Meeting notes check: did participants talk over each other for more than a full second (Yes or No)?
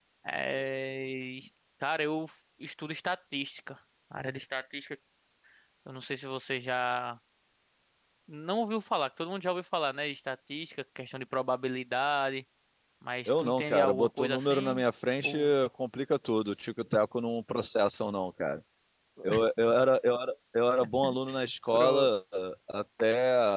Yes